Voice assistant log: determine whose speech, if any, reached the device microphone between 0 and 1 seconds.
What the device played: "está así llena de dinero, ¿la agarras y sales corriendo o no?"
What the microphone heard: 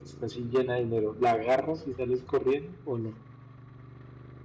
echo only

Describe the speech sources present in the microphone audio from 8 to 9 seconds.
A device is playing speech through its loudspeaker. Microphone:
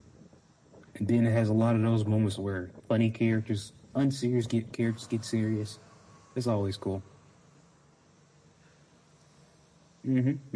neither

